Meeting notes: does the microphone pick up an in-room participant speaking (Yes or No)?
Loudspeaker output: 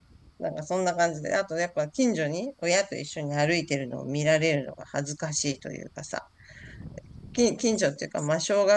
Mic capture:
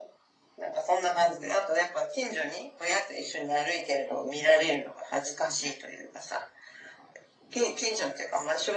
No